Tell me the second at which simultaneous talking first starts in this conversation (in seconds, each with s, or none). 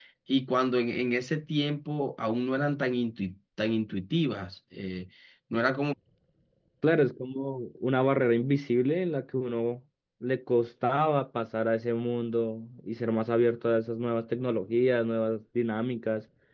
none